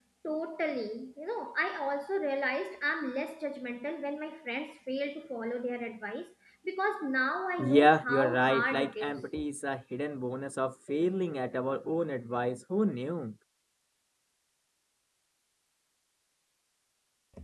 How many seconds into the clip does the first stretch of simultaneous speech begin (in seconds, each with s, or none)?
7.6 s